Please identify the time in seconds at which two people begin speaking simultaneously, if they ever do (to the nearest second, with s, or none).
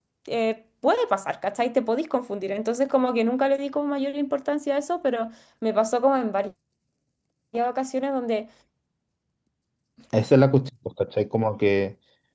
none